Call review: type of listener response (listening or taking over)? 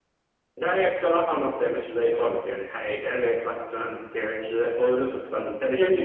listening